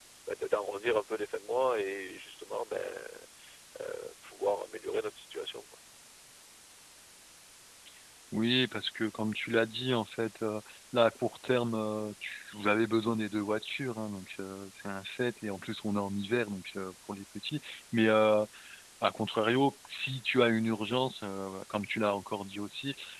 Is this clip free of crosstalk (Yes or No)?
Yes